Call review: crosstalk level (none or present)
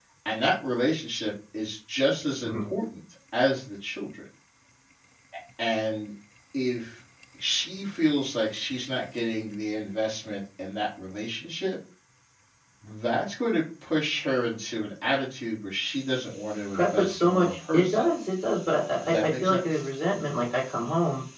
present